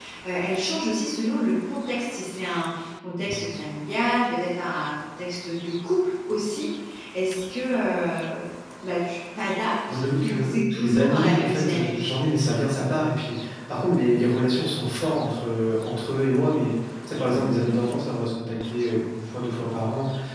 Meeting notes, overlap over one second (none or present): present